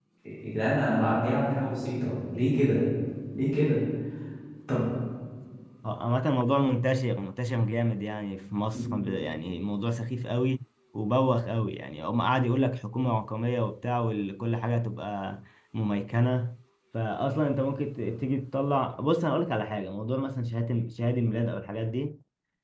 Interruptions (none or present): none